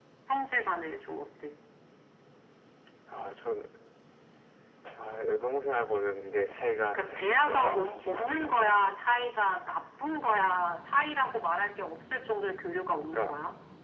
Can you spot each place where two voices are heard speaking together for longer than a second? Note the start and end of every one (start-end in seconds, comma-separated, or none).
6.9-8.9